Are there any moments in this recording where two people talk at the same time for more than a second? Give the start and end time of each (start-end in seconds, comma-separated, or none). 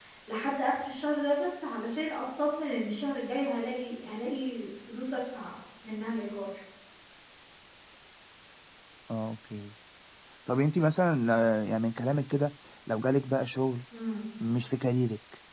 none